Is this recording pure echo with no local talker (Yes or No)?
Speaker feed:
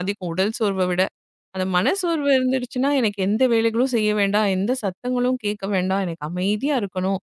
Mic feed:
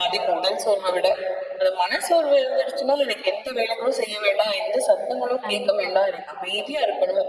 No